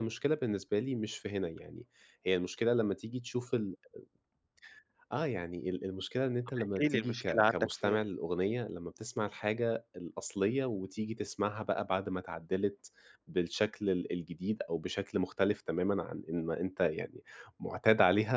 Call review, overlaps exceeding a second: present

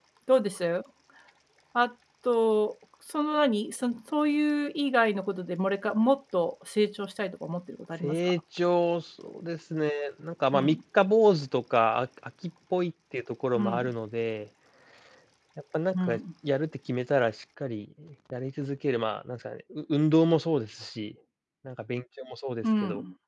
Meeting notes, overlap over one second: none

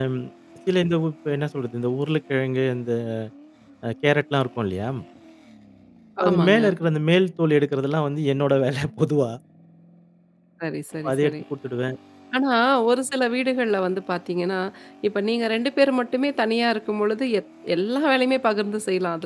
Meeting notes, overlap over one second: none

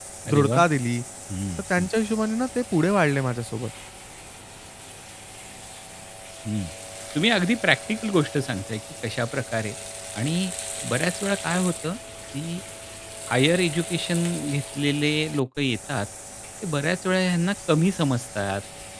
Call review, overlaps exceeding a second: none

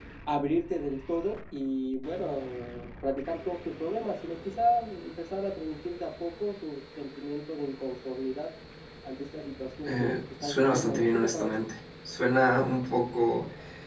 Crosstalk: present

